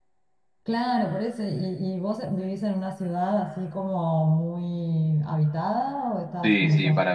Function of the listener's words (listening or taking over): taking over